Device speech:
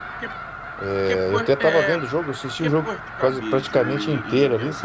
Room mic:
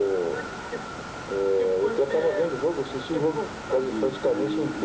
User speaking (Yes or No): No